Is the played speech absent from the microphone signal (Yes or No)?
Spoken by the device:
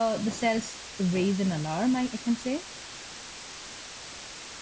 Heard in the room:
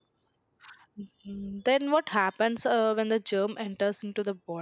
Yes